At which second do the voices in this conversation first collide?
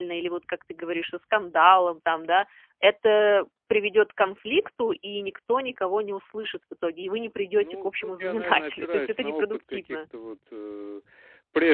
8 s

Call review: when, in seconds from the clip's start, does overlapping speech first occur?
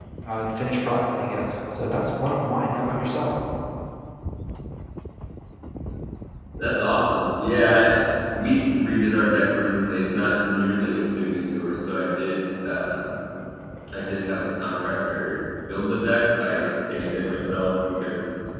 none

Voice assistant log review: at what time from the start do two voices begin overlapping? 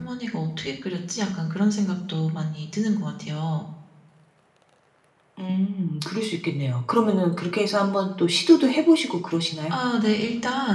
none

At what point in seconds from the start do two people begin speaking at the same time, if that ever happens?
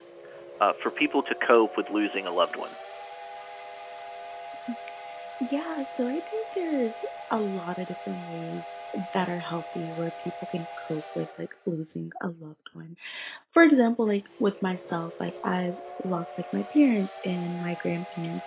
none

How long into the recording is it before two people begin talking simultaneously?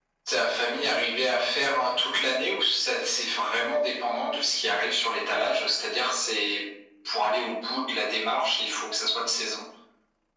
none

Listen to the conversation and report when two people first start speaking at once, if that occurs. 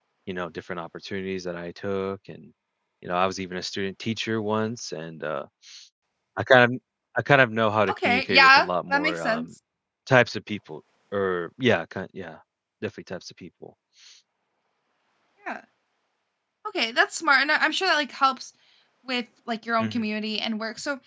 8 s

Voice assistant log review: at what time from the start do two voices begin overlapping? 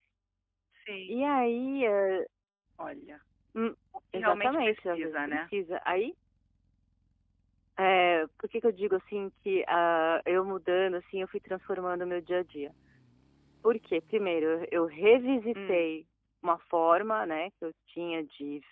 4 s

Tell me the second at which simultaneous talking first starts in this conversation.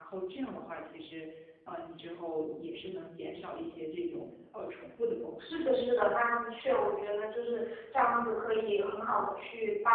none

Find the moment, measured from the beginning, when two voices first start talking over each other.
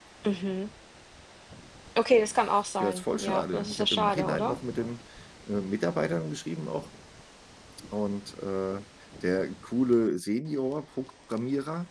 3 s

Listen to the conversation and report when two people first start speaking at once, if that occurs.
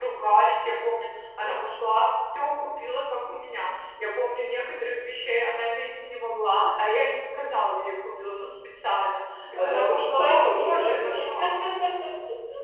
10 s

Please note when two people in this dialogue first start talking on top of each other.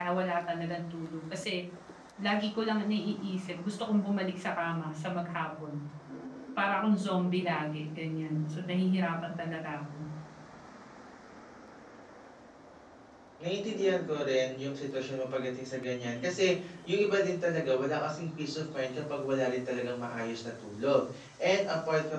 none

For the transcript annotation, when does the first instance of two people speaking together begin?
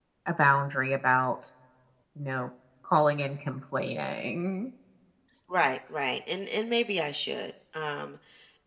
none

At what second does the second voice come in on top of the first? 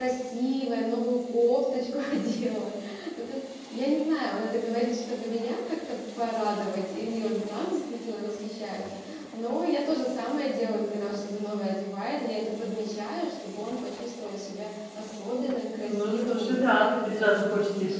16 s

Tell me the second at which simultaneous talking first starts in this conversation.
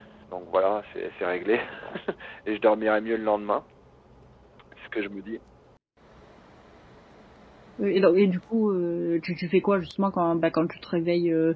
none

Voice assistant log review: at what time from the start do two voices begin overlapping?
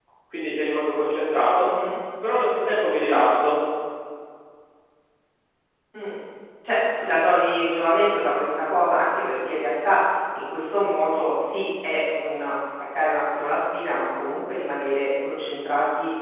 none

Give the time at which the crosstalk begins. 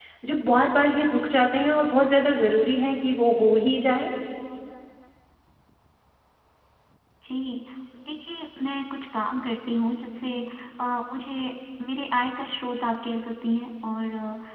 none

